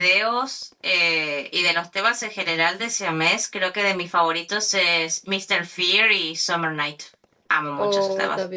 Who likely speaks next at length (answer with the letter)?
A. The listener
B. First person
A